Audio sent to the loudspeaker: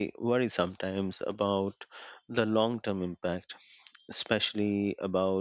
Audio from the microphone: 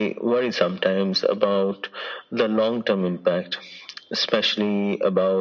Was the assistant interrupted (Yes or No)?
No